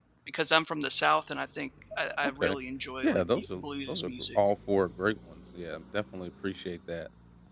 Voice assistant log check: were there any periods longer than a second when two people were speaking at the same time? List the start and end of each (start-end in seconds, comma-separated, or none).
3.0-4.4